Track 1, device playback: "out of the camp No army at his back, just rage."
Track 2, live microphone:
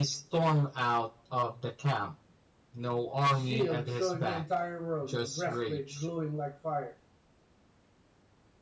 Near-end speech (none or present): present